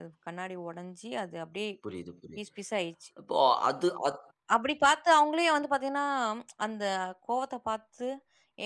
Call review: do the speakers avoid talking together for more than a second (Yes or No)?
Yes